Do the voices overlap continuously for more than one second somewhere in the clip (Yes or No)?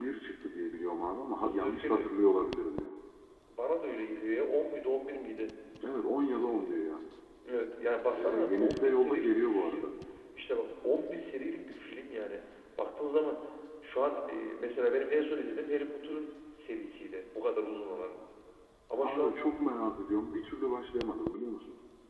Yes